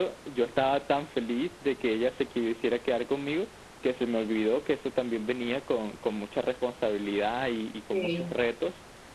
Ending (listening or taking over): listening